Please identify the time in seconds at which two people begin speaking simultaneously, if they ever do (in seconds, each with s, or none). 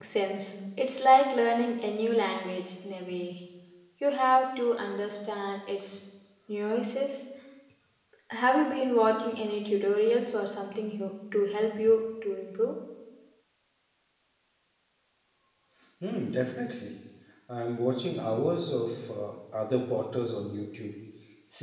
none